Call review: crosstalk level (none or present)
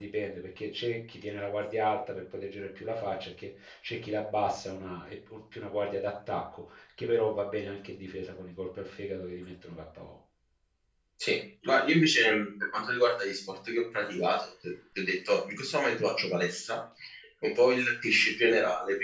none